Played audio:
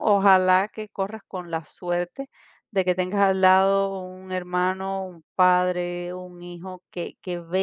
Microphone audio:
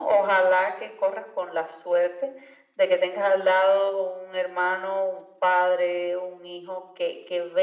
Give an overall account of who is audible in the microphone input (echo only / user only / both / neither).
echo only